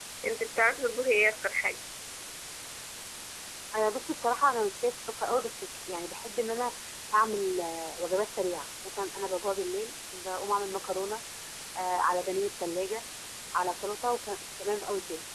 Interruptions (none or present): none